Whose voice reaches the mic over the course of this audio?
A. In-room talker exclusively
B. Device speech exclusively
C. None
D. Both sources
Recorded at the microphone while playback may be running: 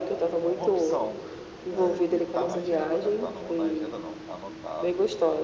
D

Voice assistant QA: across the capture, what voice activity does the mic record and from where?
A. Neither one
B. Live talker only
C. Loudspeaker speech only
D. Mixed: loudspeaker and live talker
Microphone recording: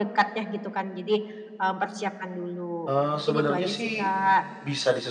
D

